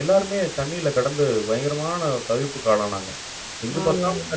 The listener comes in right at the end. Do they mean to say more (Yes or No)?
No